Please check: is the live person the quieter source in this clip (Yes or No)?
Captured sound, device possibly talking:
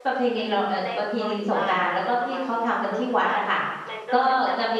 No